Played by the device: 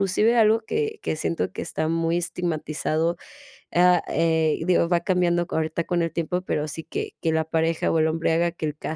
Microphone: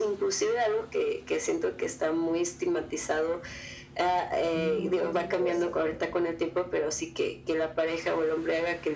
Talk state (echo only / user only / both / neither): both